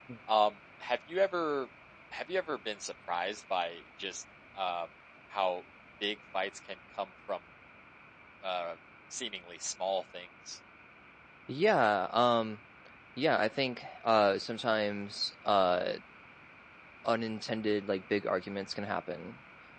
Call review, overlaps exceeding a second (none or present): none